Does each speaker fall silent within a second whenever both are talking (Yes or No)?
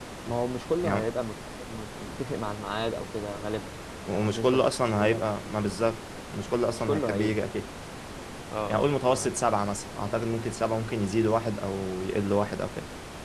No